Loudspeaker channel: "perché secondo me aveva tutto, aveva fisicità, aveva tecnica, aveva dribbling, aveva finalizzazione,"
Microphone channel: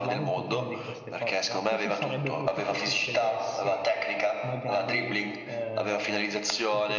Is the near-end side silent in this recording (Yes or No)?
No